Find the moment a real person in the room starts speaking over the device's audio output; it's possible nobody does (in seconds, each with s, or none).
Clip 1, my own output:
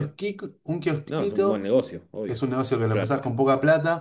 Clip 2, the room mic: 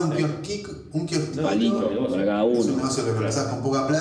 1.3 s